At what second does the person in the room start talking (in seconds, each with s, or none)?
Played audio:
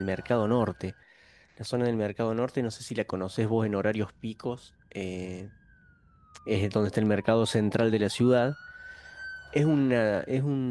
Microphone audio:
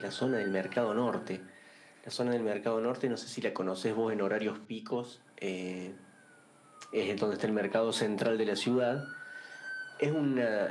none